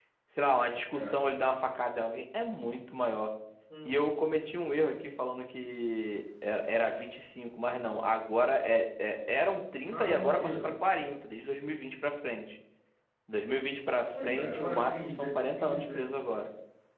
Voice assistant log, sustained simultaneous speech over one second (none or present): present